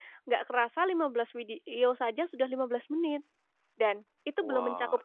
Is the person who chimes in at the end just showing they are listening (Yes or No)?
Yes